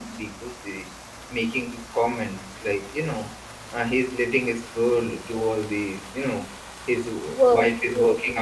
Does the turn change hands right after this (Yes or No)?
No